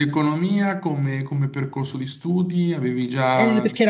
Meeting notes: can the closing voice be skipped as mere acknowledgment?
No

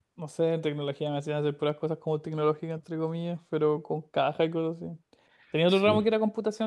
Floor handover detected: No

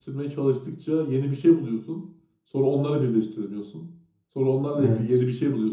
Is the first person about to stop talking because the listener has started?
No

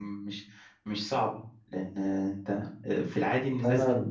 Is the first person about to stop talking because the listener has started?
No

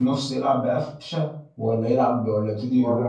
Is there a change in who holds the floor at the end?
Yes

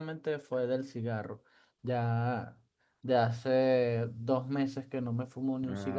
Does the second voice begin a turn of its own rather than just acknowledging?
Yes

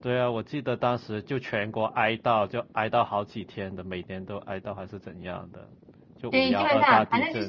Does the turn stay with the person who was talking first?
No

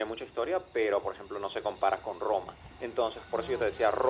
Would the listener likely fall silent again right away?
Yes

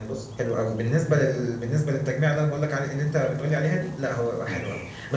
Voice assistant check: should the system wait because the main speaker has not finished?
Yes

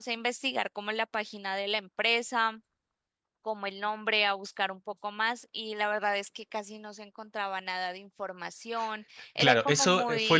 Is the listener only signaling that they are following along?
No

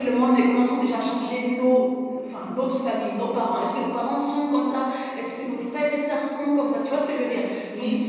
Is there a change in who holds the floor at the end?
No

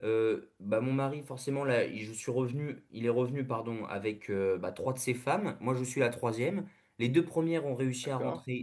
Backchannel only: Yes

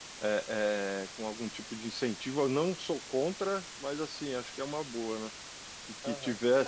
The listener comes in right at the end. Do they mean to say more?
Yes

